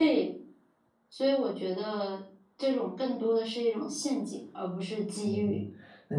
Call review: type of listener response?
taking over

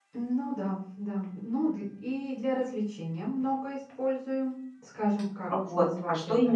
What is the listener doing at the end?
taking over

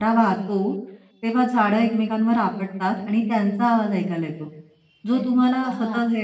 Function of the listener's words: listening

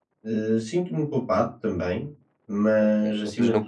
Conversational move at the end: taking over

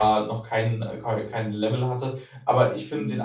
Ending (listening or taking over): listening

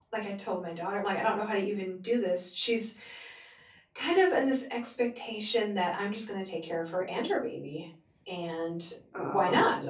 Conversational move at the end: listening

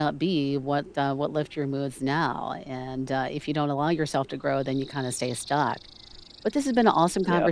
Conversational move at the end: listening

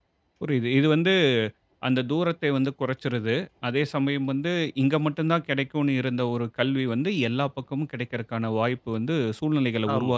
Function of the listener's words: taking over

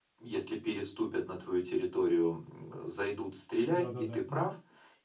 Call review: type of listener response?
listening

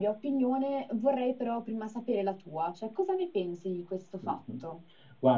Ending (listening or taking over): taking over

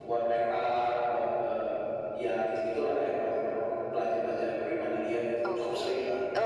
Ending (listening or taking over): taking over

